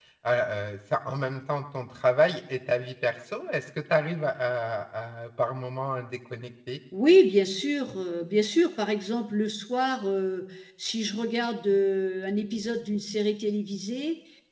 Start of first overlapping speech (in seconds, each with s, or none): none